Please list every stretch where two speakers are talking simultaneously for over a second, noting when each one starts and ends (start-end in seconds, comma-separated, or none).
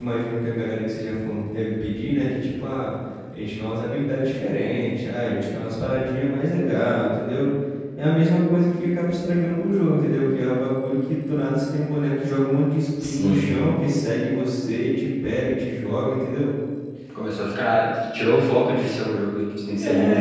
none